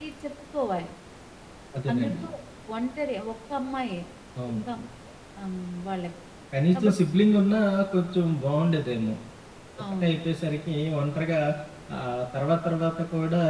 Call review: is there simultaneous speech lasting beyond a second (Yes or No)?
No